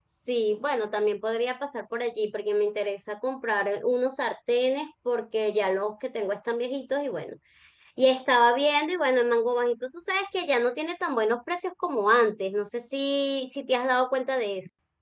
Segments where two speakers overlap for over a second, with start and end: none

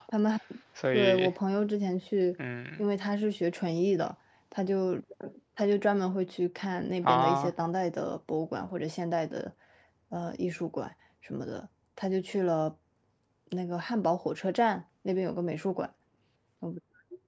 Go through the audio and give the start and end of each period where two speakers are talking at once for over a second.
none

